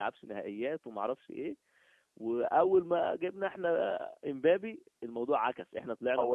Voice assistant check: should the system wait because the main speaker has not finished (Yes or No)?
No